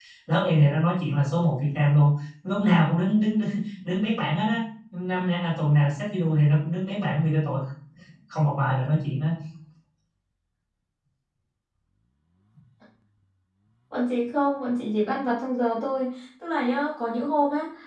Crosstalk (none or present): none